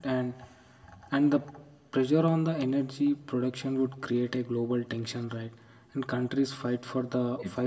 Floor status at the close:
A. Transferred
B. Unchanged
B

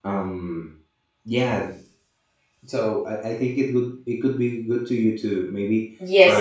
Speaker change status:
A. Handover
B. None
A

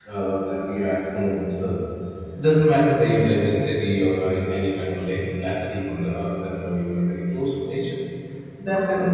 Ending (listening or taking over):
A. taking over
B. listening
B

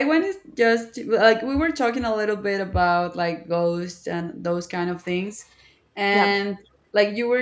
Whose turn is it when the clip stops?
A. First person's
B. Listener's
A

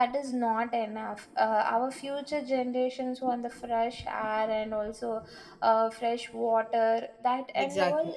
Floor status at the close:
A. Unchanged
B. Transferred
A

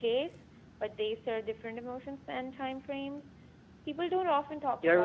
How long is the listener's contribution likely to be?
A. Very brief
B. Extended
B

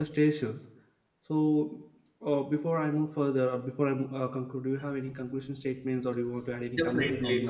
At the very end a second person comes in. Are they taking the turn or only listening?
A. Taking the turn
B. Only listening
A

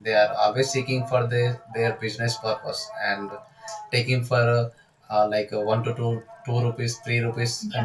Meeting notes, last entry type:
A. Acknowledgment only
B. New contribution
B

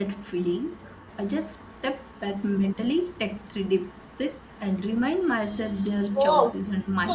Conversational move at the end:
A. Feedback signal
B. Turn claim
B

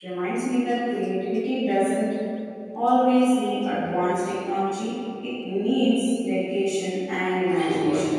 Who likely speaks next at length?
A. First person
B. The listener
B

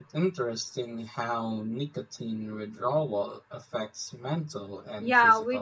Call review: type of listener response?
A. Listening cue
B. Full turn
B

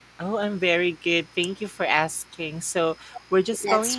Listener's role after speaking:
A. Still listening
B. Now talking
A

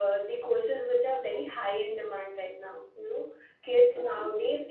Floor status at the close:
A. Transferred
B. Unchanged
B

